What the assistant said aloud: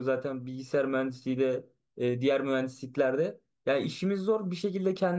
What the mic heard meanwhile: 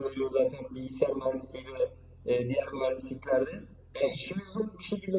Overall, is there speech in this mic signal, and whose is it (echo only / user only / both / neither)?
echo only